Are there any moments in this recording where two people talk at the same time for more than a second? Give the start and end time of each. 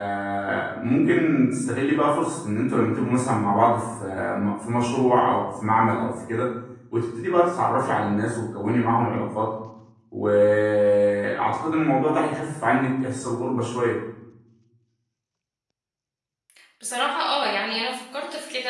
none

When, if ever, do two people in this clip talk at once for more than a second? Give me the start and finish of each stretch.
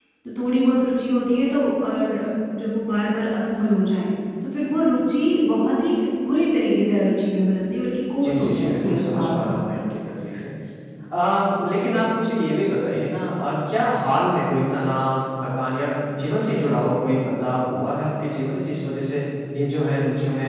8.2-9.7

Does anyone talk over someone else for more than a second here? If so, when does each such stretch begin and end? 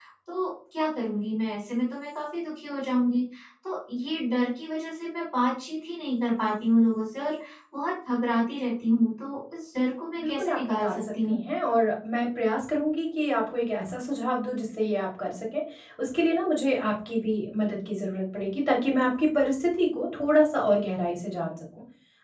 10.2-11.4

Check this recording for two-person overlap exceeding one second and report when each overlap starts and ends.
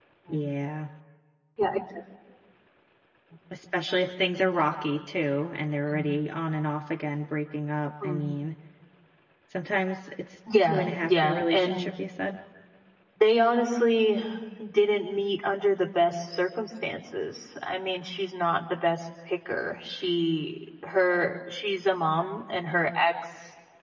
10.6-11.9

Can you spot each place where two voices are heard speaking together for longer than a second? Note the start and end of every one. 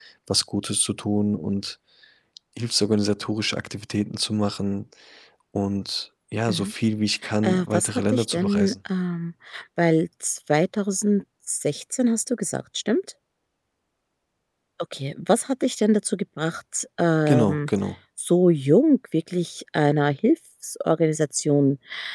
7.4-8.7

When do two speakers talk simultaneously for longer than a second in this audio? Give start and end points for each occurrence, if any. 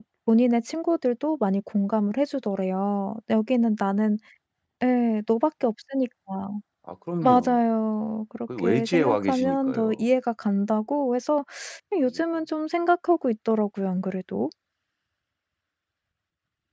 8.6-10.0

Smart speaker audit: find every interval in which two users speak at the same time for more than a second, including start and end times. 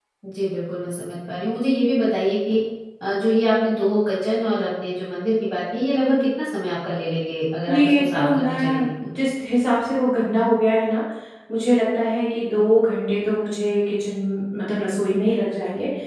7.7-8.9

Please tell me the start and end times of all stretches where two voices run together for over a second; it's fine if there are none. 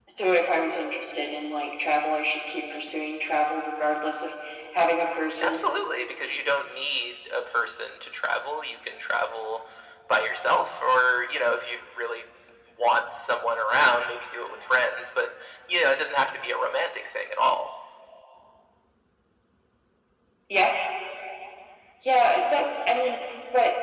none

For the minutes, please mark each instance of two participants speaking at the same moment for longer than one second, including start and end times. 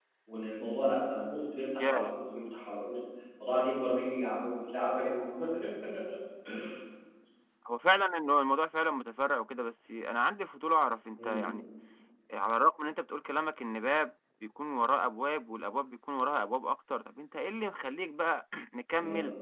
none

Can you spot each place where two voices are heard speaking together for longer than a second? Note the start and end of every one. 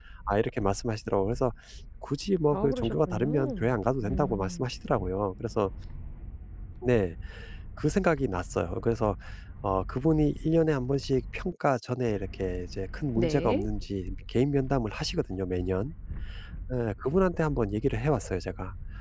2.5-4.7

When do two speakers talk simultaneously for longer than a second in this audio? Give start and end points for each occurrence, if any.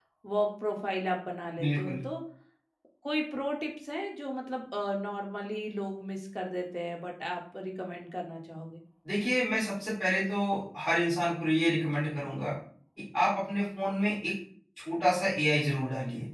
none

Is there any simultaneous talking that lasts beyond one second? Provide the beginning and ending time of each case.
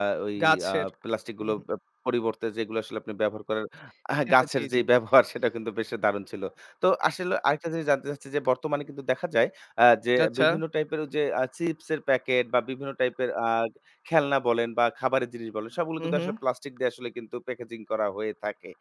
none

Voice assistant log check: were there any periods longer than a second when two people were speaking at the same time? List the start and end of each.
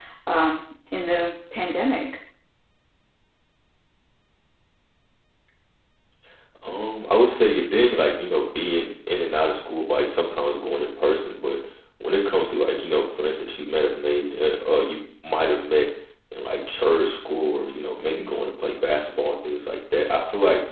none

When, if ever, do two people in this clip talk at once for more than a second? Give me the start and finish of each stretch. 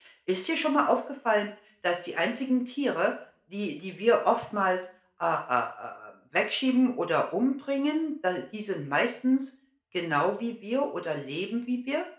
none

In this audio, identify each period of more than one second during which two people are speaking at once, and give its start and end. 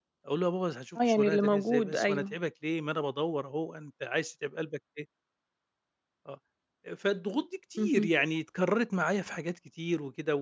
1.0-2.3

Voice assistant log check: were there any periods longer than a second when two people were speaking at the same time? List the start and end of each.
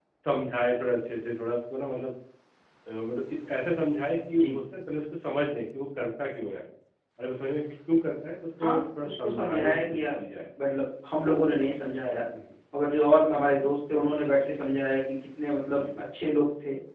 8.6-10.1

